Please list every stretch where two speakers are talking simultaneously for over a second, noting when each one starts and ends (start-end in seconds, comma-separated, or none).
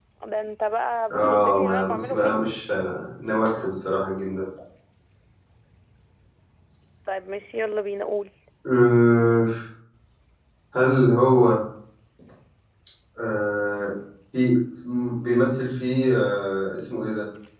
1.1-2.4